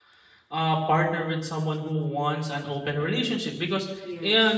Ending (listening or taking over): listening